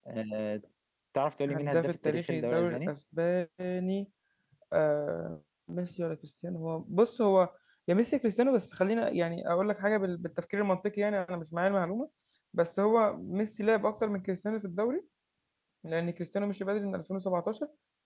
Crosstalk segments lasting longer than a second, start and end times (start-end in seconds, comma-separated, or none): 1.5-2.9